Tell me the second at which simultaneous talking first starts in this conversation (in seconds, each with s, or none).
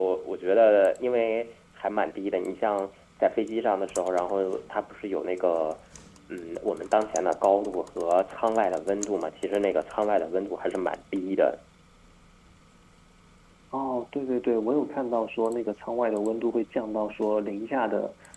none